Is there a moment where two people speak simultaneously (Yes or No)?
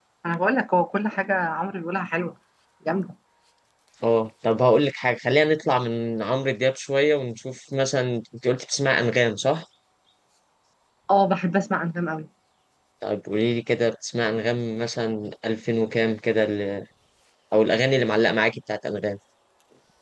No